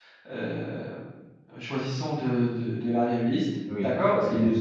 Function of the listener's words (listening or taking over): taking over